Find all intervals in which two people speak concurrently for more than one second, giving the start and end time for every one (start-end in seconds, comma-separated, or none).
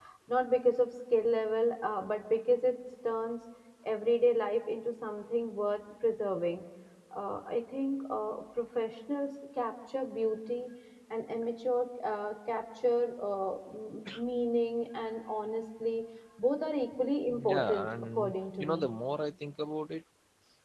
17.5-18.9